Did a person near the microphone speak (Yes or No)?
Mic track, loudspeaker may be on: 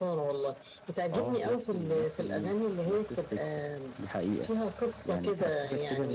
Yes